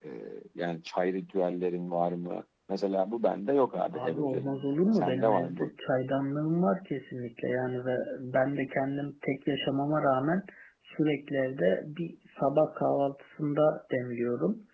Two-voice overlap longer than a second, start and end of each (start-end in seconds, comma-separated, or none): 3.9-5.7